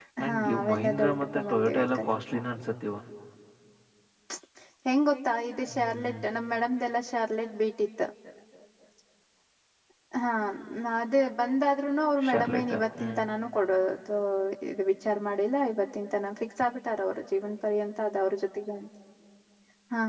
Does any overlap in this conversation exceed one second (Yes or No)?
Yes